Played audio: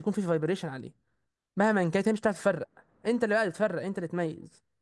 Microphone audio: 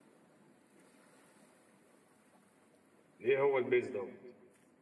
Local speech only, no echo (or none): ايه هو البيز ده